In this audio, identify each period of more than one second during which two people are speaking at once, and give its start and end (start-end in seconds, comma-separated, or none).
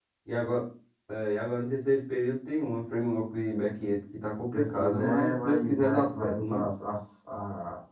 4.5-6.6